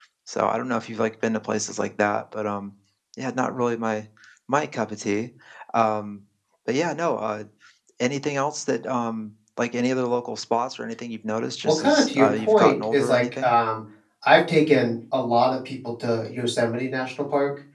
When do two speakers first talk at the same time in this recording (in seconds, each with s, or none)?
11.6 s